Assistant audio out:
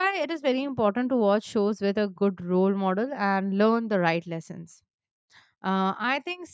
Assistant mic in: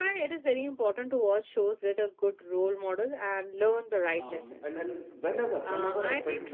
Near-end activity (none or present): present